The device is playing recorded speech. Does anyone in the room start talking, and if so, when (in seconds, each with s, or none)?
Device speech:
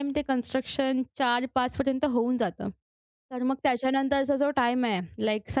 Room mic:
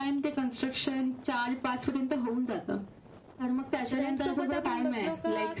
3.9 s